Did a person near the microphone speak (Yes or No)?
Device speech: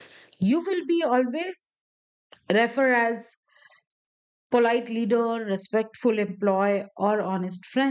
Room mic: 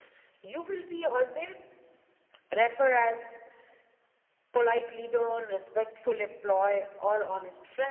No